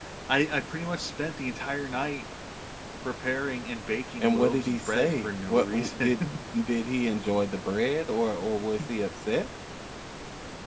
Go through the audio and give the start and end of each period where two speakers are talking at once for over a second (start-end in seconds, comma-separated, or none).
4.2-6.1